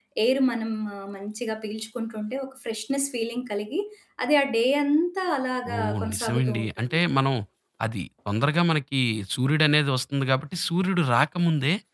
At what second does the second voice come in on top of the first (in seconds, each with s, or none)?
5.7 s